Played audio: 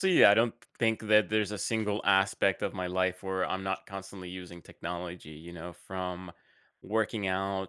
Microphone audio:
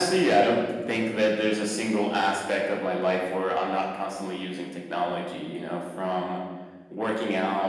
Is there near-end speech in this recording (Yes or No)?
No